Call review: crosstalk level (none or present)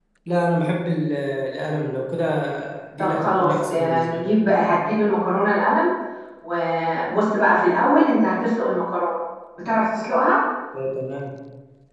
present